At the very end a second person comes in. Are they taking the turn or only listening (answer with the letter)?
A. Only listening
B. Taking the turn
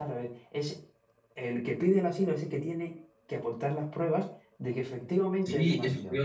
B